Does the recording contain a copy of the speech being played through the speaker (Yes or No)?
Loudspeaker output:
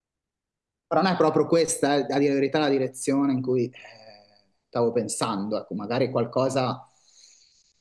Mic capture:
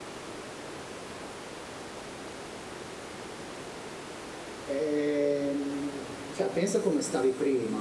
No